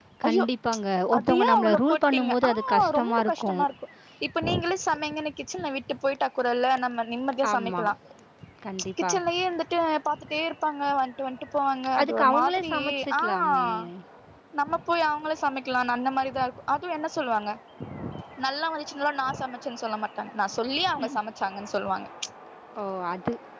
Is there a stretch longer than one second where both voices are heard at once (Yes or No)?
Yes